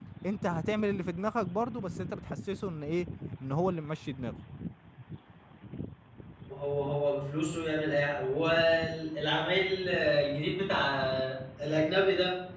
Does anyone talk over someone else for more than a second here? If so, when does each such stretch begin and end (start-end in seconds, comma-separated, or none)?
none